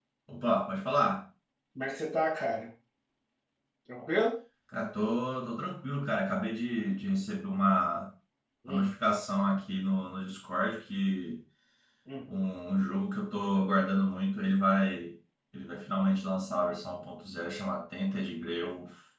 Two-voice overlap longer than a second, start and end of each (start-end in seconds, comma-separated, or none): none